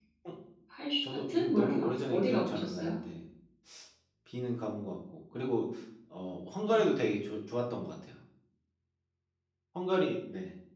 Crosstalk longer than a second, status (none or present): present